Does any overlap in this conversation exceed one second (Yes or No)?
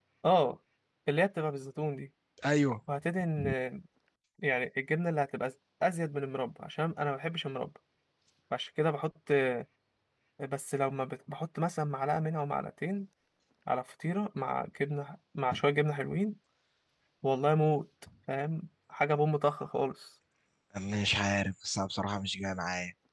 No